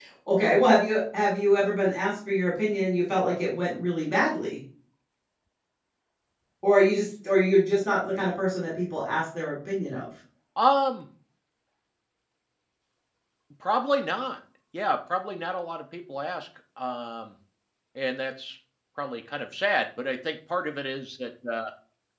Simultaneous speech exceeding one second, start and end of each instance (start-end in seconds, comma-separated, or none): none